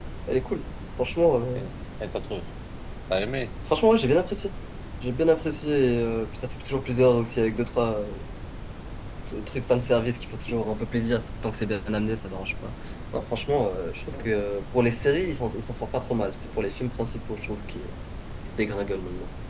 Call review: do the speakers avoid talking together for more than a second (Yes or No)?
Yes